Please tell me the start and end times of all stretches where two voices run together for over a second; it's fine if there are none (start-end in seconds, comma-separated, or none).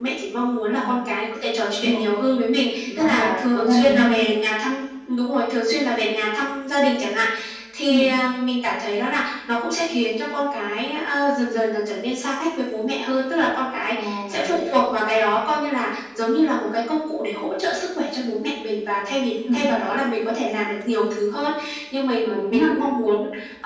2.9-4.1